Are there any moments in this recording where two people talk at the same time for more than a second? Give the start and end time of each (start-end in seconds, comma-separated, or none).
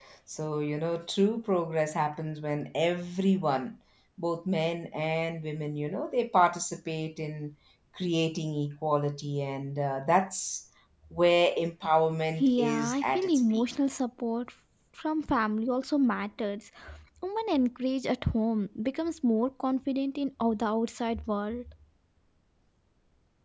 12.4-13.7